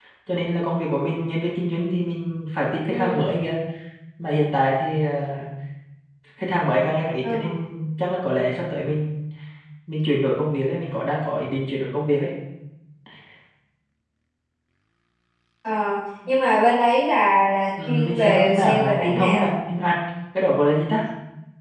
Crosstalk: present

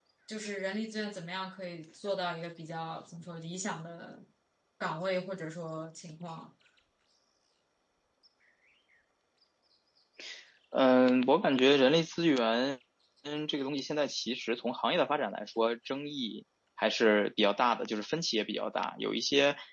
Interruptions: none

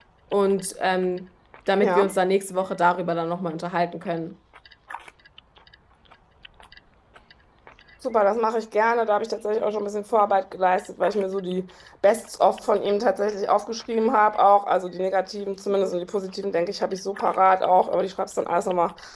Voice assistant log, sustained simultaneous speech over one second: none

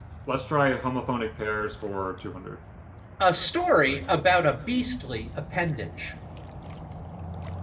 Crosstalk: none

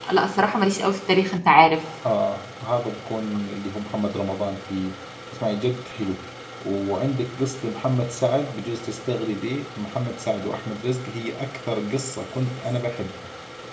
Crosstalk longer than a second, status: none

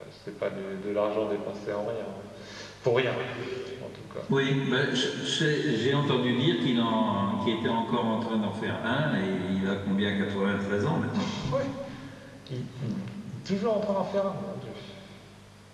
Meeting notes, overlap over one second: none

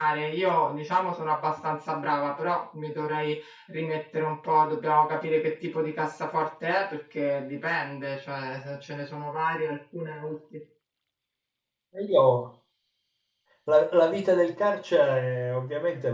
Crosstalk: none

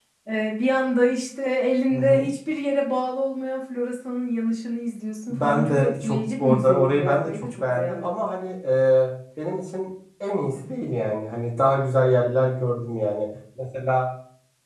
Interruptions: present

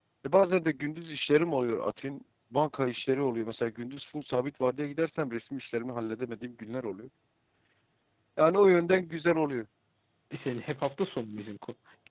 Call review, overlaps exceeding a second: none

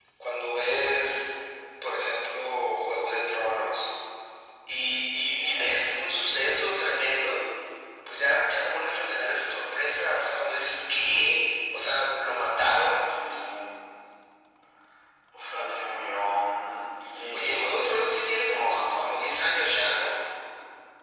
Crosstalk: present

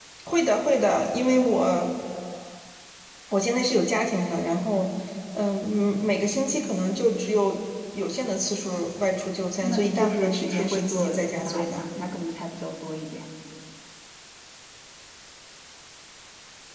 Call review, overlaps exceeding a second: present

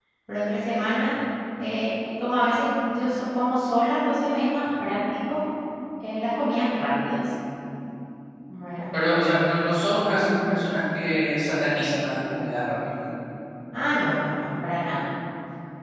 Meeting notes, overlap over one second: none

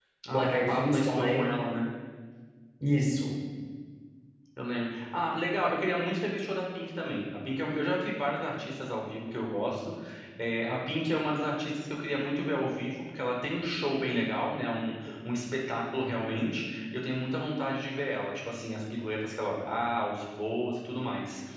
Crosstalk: present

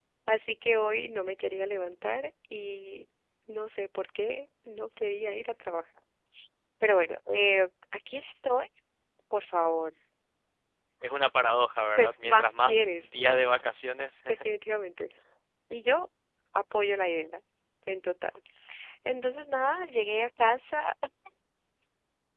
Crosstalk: present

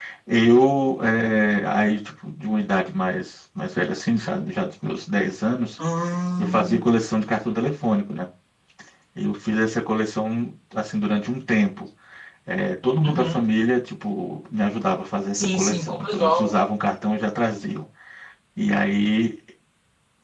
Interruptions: present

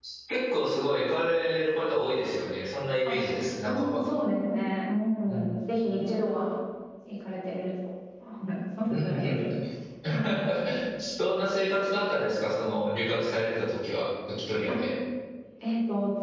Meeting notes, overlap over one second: none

